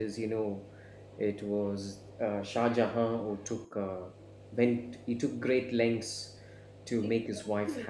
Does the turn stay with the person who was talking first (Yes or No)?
No